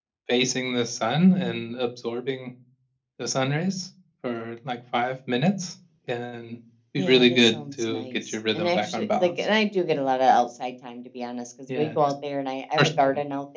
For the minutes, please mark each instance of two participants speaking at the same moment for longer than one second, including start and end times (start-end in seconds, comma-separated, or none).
7.0-9.4